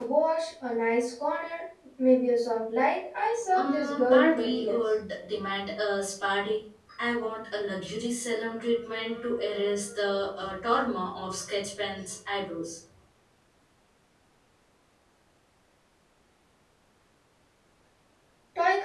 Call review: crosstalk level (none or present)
present